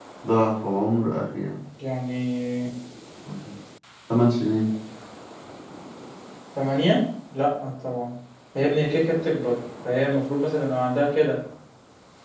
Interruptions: none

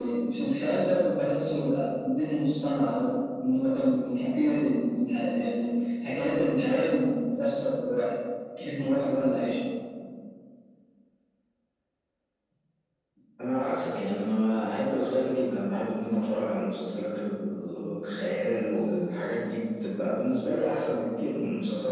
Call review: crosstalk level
none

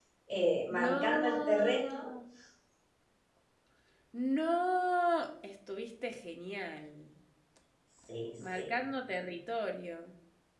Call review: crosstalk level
present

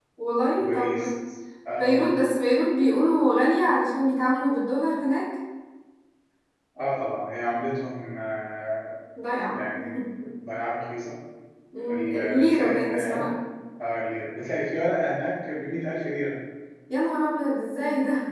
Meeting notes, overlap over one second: present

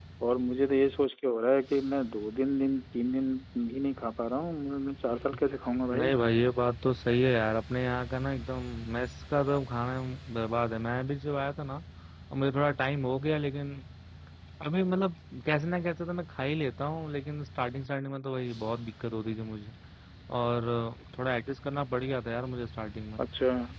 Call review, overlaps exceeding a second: none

